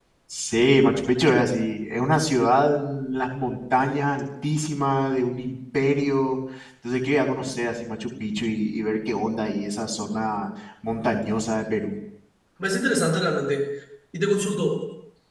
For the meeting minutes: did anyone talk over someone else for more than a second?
No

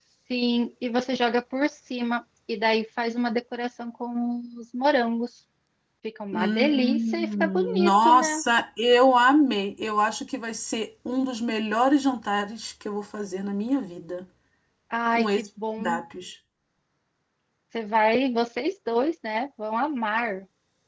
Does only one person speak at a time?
No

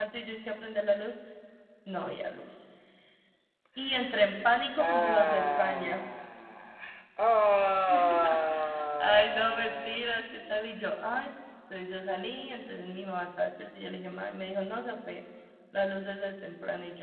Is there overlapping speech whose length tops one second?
Yes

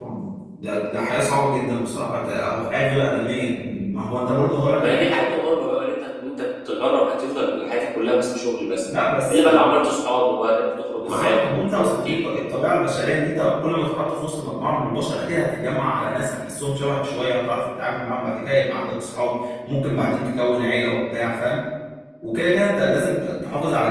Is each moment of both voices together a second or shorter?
No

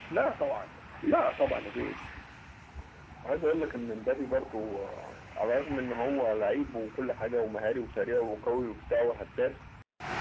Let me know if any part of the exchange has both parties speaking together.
No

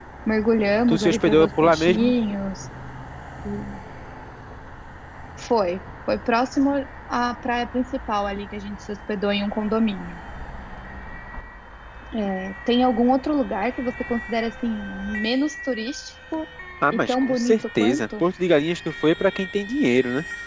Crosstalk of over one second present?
Yes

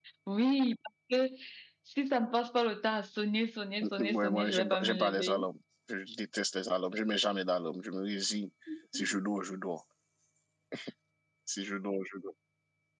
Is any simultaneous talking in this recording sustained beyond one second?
Yes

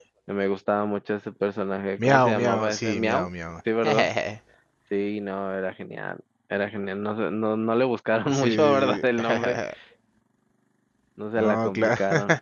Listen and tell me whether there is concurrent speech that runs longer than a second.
Yes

